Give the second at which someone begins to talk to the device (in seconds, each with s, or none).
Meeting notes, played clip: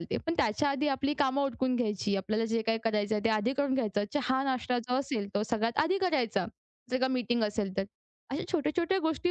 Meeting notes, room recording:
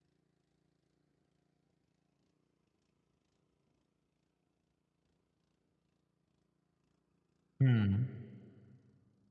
7.6 s